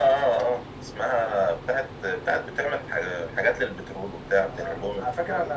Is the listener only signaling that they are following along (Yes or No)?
No